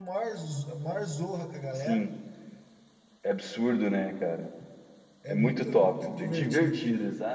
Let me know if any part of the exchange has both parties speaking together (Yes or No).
Yes